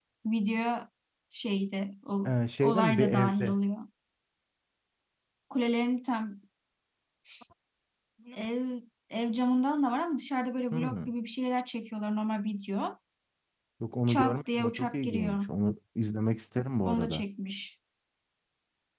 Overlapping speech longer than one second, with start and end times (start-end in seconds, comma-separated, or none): 2.2-3.5, 14.1-15.4